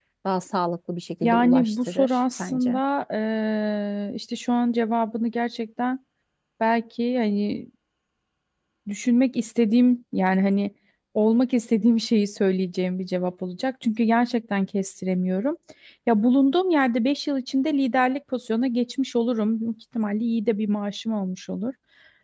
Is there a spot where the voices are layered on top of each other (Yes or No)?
Yes